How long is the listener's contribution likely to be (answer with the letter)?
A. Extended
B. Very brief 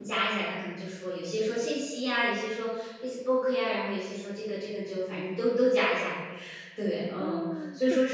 A